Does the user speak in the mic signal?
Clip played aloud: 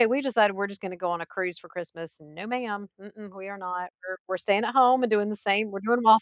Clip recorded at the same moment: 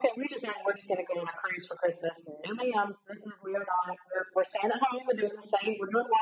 No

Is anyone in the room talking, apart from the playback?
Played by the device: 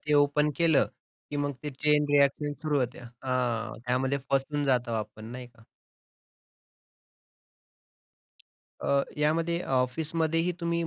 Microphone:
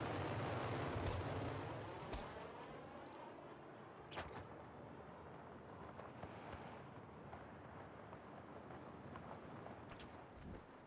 No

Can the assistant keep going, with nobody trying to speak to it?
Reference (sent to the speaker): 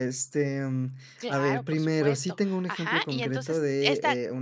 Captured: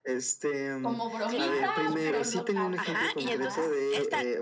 No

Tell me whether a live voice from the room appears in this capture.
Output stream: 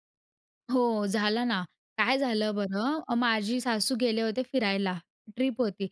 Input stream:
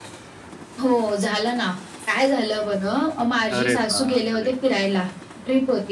Yes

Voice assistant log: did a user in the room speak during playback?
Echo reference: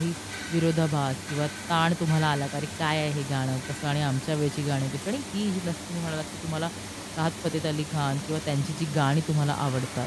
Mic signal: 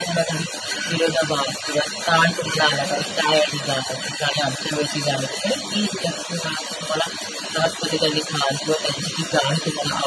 Yes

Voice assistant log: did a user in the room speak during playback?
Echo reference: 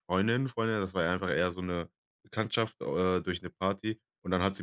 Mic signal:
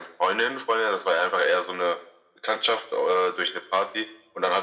No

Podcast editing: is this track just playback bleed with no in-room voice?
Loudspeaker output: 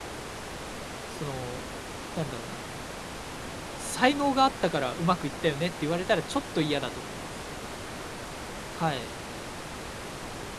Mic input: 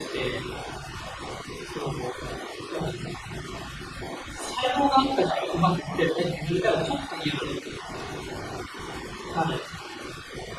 Yes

